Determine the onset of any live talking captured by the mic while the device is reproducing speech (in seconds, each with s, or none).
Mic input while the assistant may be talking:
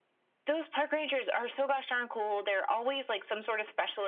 none